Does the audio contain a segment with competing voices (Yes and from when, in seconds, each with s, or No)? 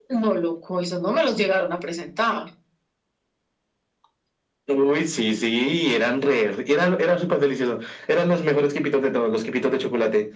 No